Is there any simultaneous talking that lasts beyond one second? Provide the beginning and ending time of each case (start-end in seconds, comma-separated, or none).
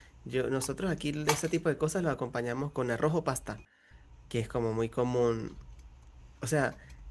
none